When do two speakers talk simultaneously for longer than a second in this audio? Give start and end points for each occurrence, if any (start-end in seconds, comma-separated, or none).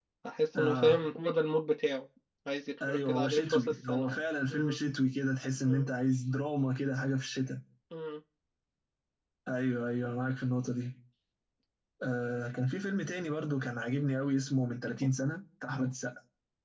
2.9-4.1